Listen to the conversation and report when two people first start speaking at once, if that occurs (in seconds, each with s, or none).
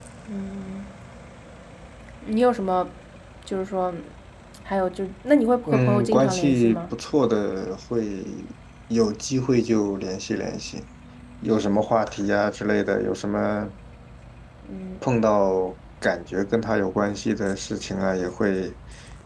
5.7 s